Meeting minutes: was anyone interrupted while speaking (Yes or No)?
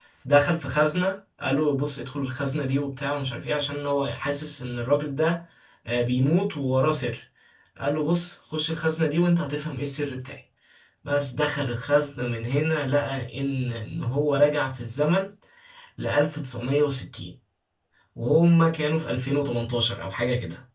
No